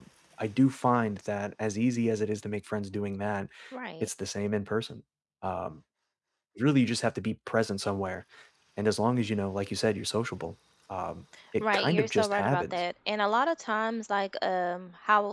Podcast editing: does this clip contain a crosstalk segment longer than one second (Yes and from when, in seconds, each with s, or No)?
Yes, from 11.6 s